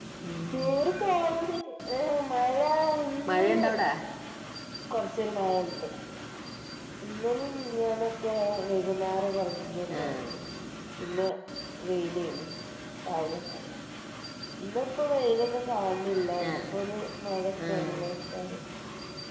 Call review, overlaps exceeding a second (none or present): none